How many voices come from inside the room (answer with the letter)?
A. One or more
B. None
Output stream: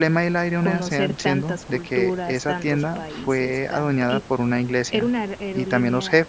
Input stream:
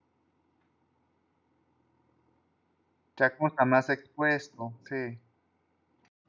A